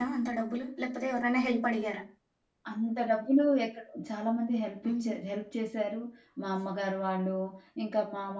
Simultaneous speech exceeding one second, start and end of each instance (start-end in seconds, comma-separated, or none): none